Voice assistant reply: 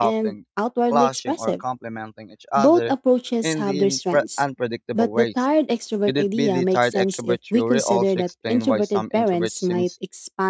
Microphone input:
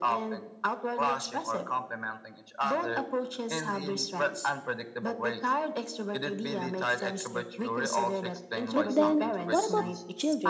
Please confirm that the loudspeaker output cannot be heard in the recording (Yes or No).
No